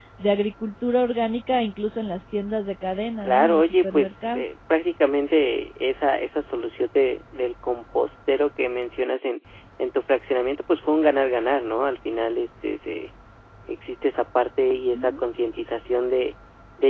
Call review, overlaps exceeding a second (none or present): present